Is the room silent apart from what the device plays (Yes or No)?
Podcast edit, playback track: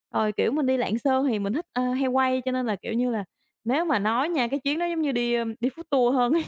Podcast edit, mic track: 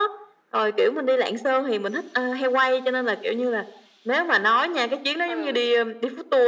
No